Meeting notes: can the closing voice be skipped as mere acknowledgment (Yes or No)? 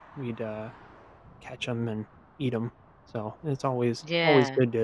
Yes